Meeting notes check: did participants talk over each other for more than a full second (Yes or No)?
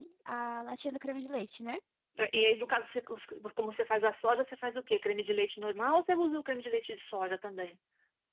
No